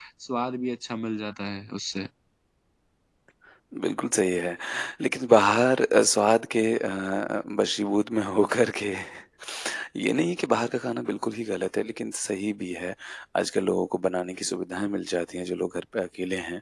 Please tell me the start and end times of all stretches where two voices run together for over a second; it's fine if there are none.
none

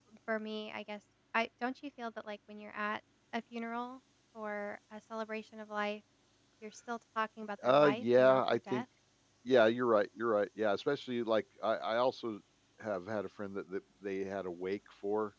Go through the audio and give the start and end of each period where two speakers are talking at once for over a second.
7.6-8.8

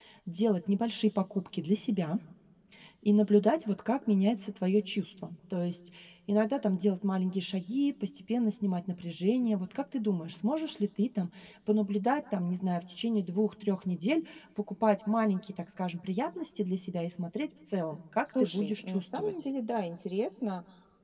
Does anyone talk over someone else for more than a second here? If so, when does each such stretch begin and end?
18.2-19.5

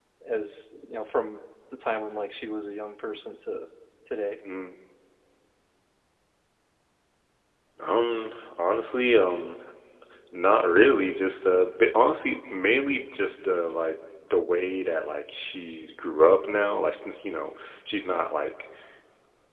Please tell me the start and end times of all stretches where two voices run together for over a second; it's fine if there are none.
none

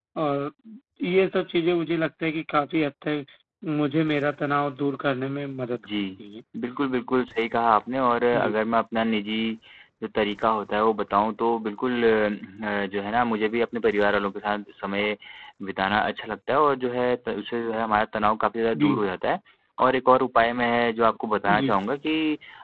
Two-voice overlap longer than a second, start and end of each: none

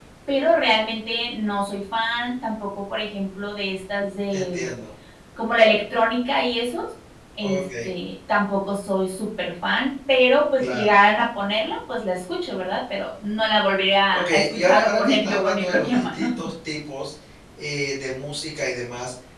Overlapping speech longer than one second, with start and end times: 14.1-16.3

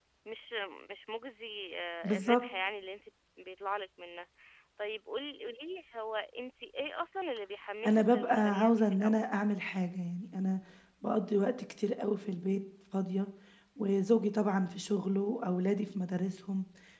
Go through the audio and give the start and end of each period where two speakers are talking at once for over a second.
7.8-9.1

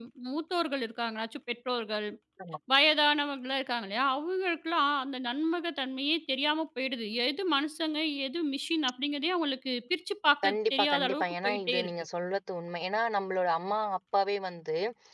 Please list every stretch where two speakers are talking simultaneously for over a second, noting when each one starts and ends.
10.4-11.9

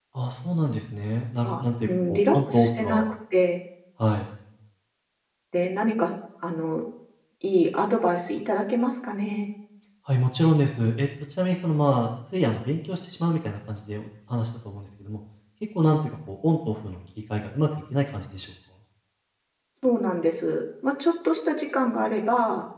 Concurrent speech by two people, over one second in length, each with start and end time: 1.4-3.1

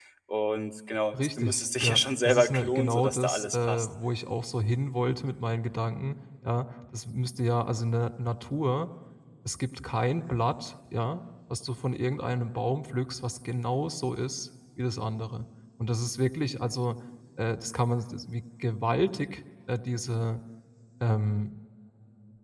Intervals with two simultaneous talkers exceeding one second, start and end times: 1.2-3.9

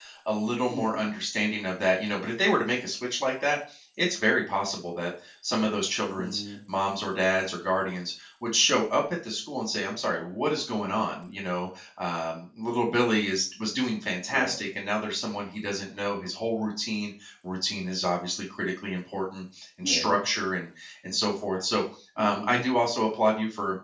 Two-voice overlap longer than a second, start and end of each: none

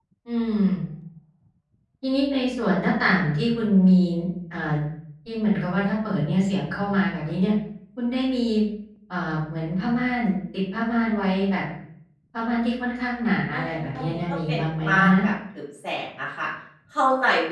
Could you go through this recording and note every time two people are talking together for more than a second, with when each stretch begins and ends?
13.5-15.2

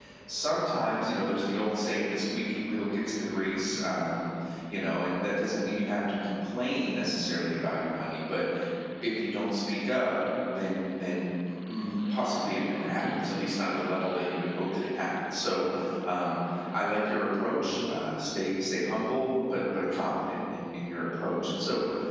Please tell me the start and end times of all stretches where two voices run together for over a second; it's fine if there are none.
none

